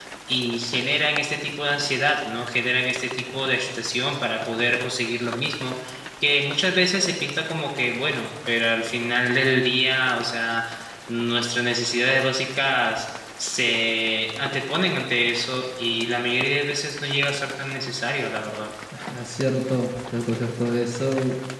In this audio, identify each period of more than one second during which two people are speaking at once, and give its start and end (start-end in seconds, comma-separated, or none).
none